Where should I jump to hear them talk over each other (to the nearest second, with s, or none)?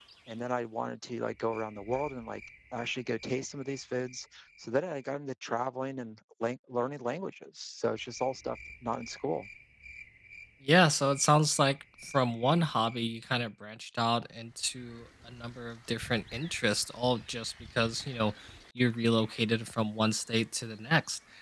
none